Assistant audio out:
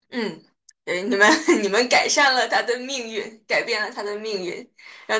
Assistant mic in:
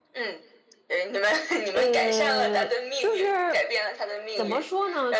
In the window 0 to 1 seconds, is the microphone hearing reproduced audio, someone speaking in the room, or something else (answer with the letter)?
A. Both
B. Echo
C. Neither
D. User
B